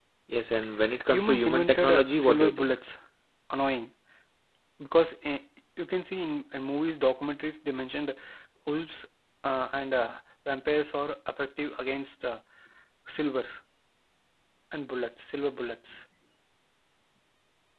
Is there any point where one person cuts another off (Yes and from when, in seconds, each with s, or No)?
Yes, from 1.1 s